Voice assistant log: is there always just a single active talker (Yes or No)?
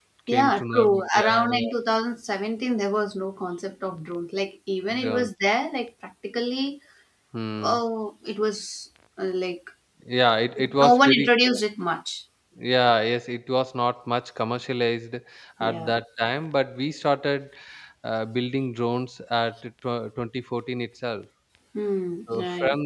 No